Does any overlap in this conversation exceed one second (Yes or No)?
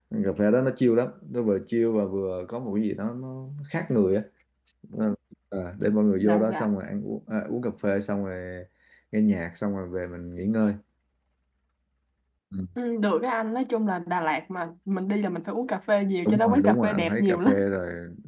Yes